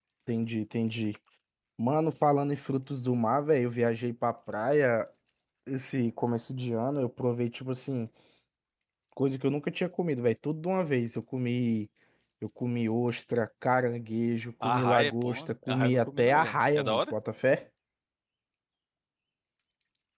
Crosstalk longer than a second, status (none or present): present